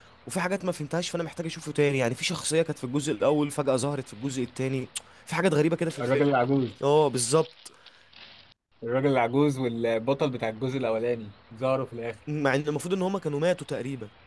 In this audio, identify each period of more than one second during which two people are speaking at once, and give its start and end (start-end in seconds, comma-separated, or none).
none